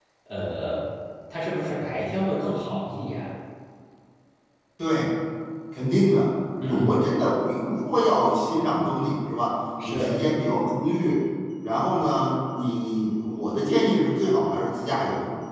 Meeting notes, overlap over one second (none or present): none